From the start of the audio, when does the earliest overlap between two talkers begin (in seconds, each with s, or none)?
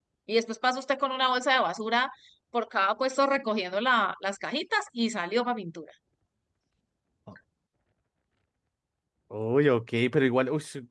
none